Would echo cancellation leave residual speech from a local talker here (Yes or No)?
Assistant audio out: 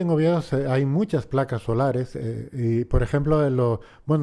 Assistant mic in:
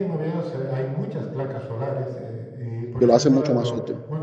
Yes